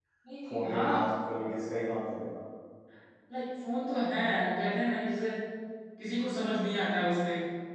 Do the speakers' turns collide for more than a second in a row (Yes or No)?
No